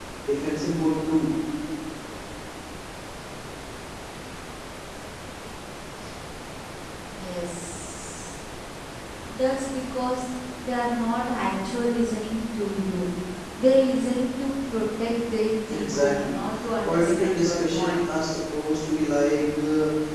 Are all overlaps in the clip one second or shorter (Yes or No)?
No